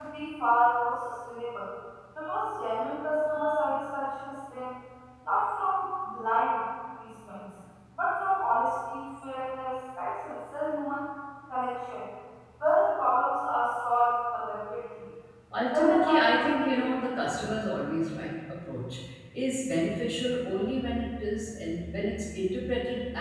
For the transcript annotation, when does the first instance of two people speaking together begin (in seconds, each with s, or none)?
15.7 s